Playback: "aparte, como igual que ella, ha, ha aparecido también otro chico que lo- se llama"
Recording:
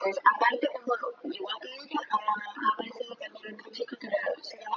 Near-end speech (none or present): none